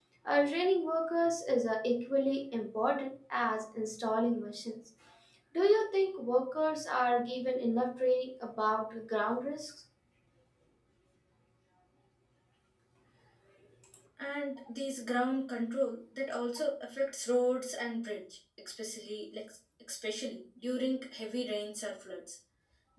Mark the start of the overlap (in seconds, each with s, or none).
none